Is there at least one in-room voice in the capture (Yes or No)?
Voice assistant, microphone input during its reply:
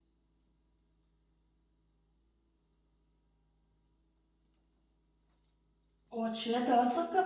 Yes